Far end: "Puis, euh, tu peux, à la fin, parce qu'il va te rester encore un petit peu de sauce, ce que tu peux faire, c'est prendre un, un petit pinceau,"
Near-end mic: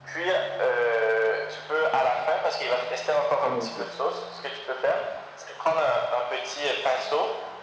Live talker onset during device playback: 3 s

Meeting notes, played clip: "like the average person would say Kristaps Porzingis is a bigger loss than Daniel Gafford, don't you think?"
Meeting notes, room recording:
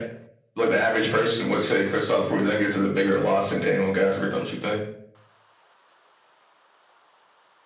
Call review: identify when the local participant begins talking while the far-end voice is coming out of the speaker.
none

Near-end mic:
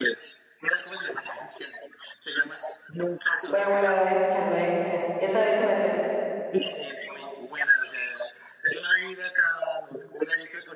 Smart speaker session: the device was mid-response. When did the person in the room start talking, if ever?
3 s

